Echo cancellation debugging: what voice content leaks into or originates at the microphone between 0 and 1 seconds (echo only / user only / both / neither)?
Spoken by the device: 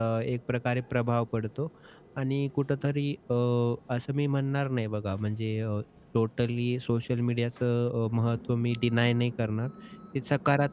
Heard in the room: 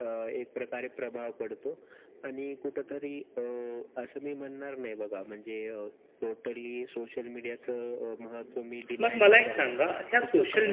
echo only